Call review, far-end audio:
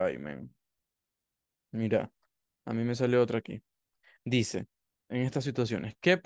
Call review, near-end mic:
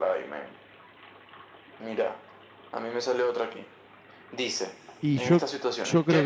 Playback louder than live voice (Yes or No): No